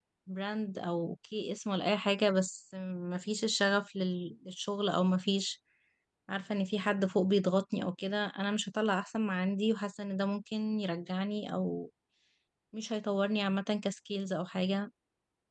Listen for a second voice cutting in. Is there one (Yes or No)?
No